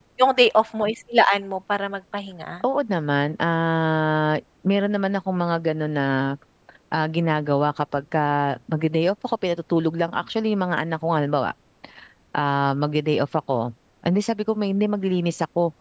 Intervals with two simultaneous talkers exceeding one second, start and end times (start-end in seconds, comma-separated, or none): none